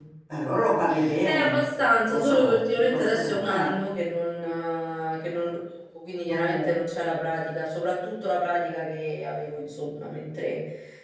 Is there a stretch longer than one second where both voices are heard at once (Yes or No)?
Yes